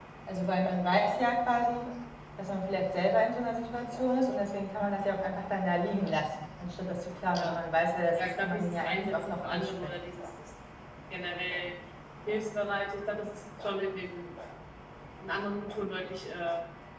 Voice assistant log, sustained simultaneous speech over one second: present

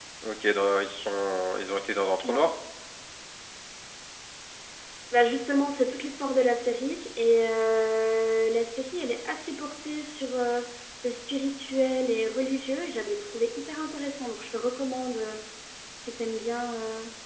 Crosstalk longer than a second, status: none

